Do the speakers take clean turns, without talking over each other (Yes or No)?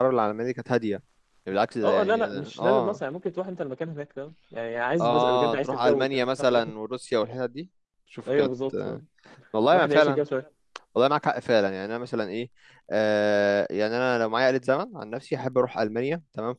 No